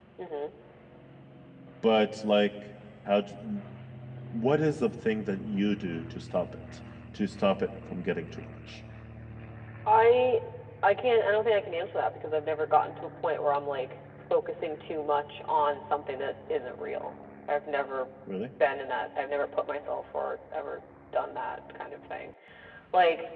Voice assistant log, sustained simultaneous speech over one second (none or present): none